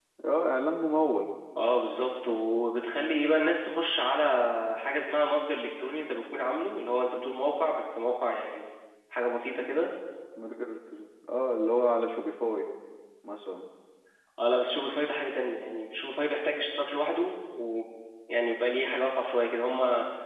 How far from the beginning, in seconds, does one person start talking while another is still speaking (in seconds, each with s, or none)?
none